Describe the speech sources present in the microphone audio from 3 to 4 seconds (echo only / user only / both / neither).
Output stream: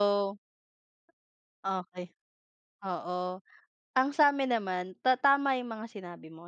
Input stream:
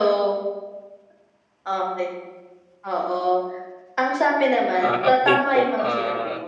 echo only